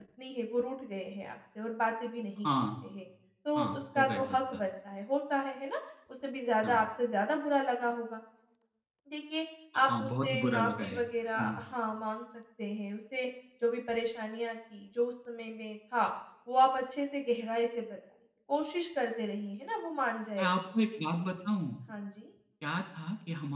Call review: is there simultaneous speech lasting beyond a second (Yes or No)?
Yes